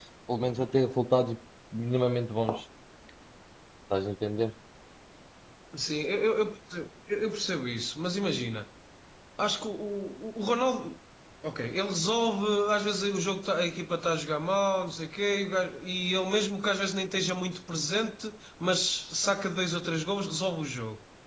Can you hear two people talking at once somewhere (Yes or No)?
No